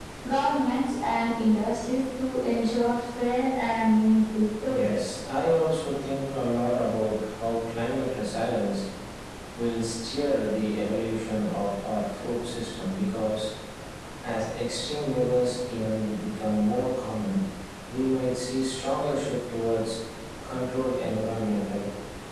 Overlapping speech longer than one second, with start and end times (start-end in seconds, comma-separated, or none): none